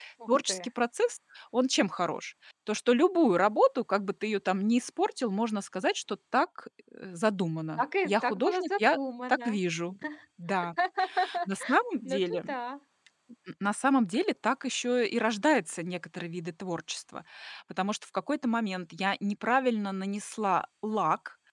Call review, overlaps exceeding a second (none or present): present